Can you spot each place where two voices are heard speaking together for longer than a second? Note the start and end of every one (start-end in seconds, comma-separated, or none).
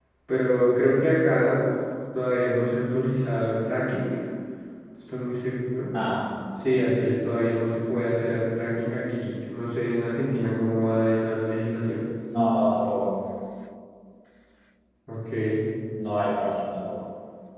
none